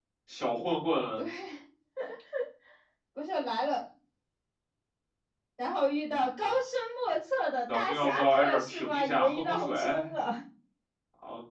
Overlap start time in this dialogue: 8 s

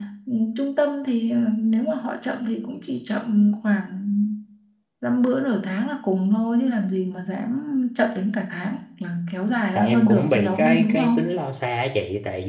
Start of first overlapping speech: 10 s

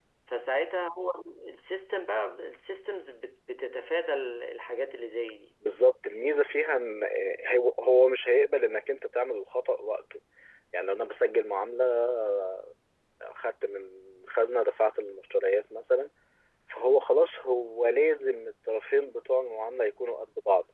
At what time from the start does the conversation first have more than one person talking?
none

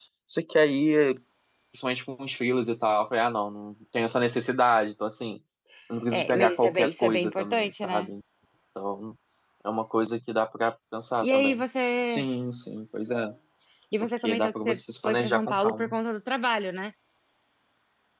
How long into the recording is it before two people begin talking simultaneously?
6 s

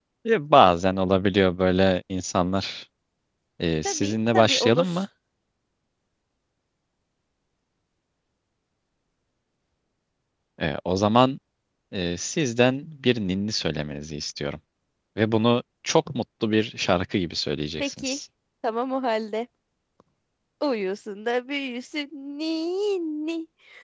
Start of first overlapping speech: 4 s

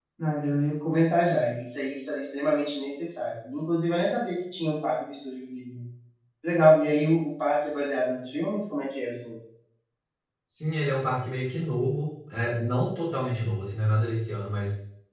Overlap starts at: none

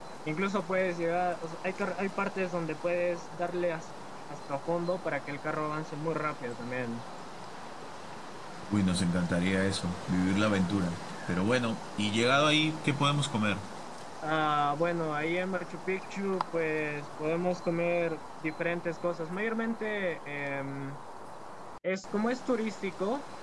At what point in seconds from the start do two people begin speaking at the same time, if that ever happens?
none

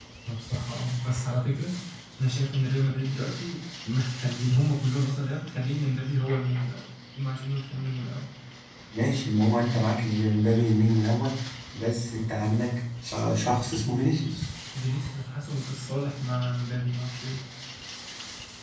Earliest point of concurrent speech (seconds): none

